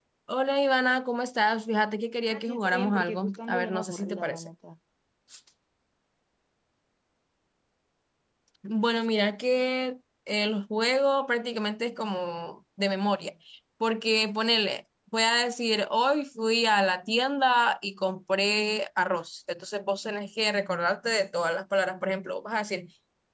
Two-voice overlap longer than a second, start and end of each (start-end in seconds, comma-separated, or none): 2.3-4.5